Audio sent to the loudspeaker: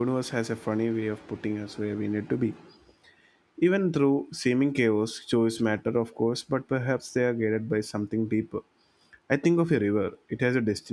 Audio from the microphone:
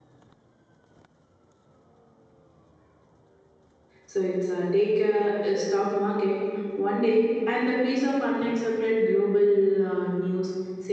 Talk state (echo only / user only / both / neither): user only